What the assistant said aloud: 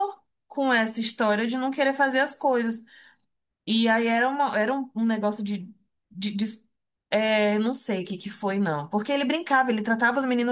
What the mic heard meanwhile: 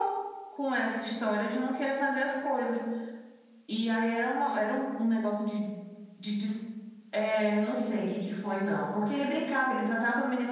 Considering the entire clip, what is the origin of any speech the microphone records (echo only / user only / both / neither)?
echo only